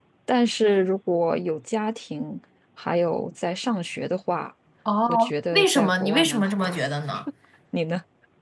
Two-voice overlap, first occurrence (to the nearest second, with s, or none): 5 s